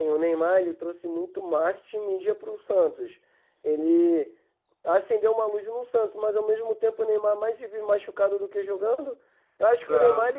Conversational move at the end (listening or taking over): listening